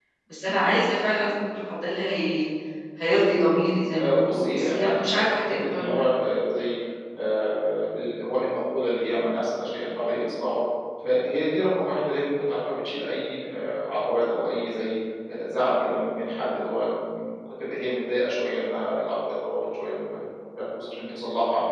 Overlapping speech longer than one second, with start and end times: 4.0-6.0

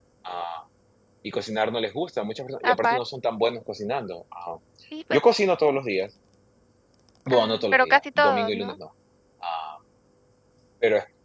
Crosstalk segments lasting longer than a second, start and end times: 7.3-8.7

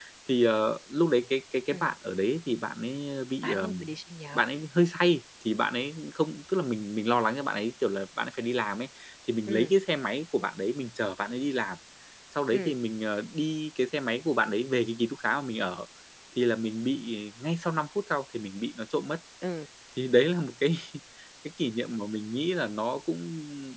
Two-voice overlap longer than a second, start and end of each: none

